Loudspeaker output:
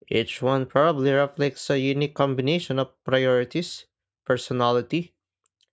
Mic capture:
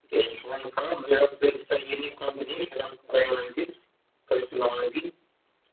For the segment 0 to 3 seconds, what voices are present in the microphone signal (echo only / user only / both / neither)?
echo only